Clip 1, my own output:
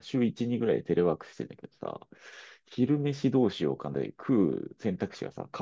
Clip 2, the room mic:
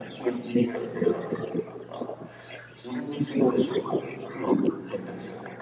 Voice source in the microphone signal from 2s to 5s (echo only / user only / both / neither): echo only